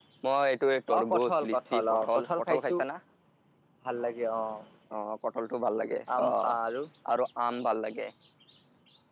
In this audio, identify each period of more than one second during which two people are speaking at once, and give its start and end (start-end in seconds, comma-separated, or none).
1.0-2.7